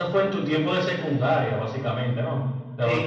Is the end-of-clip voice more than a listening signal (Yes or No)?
Yes